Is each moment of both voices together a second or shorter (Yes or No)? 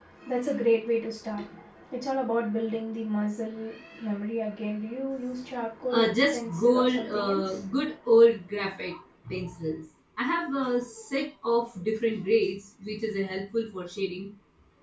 No